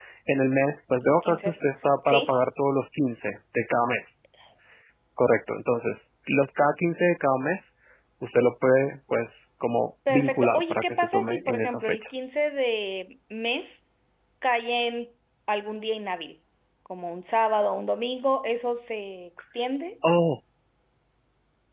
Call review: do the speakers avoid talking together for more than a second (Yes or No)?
No